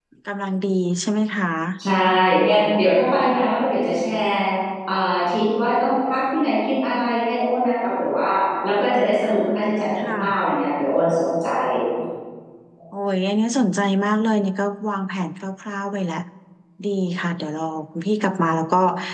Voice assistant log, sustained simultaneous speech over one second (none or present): none